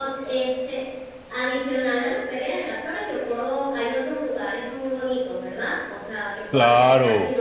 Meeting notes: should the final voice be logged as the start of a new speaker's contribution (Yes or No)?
Yes